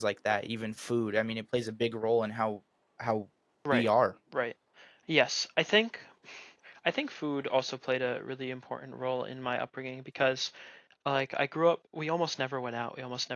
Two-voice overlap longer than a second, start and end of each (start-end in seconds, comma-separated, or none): none